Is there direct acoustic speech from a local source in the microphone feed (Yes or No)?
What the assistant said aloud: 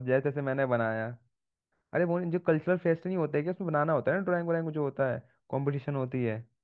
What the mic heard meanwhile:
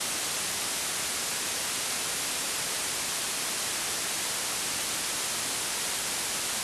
No